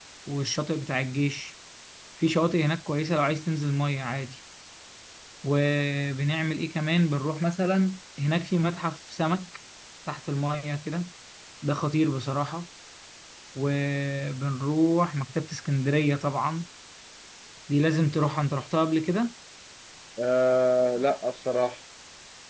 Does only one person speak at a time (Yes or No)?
Yes